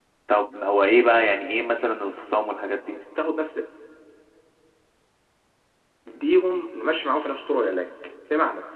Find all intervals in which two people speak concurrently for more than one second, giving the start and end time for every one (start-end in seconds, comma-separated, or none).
none